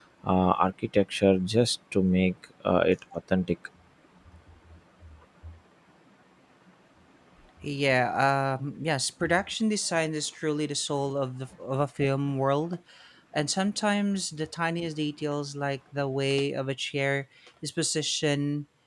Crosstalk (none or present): none